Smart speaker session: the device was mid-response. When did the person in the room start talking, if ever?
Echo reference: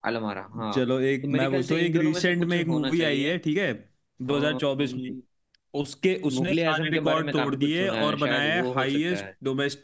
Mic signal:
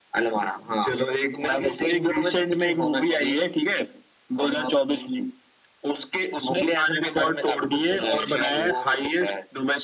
none

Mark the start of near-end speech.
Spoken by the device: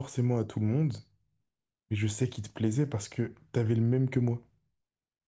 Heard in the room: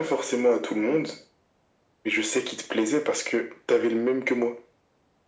none

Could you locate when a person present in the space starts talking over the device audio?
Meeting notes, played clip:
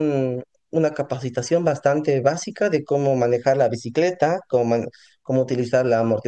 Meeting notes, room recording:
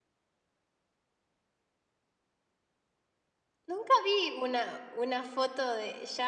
3.7 s

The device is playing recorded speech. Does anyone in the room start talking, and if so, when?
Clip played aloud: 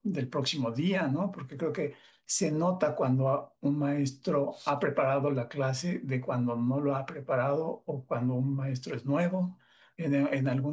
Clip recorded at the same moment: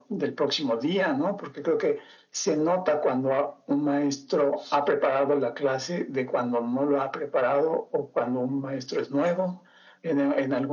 none

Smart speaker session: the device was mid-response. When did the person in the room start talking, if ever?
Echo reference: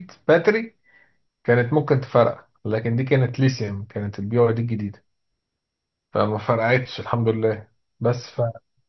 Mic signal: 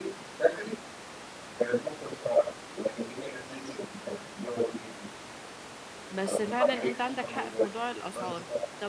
6.1 s

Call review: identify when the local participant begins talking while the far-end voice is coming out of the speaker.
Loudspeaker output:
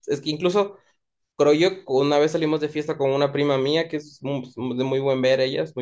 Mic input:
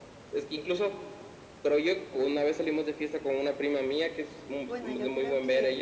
4.6 s

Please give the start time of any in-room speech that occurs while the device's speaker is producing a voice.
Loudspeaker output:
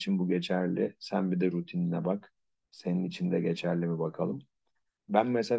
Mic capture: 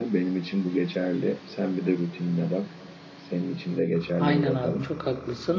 4.2 s

